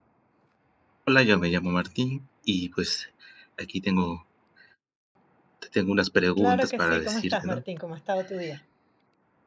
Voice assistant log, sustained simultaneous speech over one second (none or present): present